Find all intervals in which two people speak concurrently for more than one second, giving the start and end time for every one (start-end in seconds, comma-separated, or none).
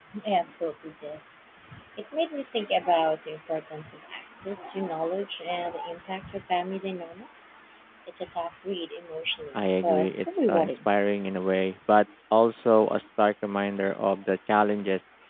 9.5-10.9